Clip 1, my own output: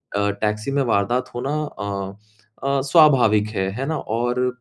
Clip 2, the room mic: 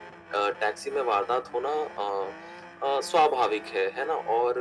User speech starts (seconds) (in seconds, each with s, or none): none